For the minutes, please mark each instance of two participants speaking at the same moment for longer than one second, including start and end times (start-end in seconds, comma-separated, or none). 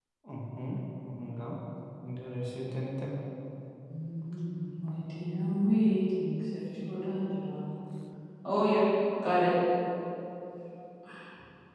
none